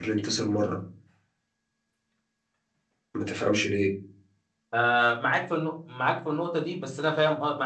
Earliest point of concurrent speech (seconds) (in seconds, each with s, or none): none